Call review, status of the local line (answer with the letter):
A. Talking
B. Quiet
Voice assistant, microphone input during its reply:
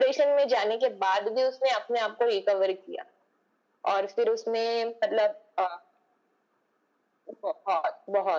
B